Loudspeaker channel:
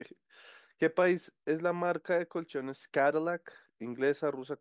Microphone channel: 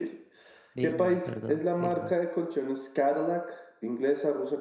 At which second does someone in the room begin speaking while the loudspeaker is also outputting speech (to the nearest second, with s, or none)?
1 s